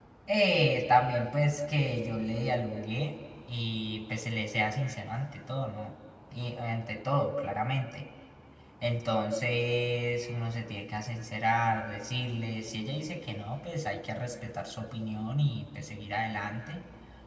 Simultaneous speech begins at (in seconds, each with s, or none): none